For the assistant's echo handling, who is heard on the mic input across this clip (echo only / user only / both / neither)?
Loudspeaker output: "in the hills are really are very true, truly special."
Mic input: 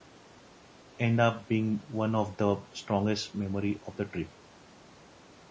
user only